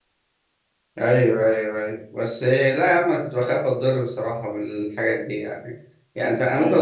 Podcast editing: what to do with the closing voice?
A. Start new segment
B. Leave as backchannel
B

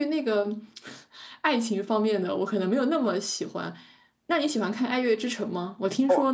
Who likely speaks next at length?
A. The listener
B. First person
B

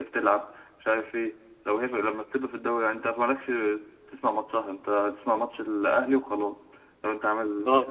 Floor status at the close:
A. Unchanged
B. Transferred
B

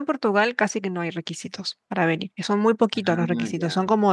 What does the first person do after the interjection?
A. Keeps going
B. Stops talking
A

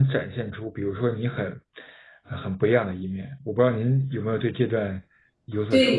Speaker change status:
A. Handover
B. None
A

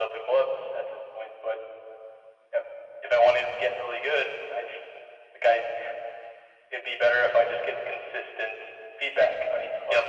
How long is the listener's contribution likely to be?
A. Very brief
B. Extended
B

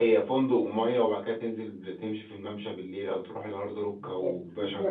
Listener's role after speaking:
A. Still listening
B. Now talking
B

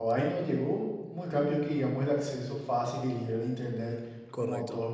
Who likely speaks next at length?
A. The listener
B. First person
B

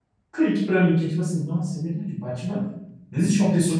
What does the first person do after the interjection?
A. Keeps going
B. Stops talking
B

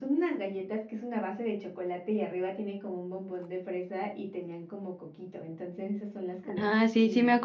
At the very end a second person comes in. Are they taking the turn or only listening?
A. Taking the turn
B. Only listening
A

